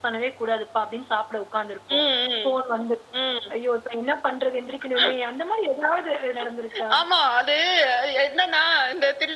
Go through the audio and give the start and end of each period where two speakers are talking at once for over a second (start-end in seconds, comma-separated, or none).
none